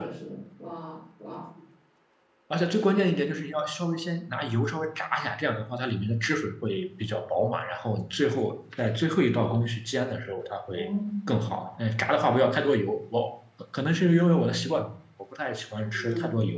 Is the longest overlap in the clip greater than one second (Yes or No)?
No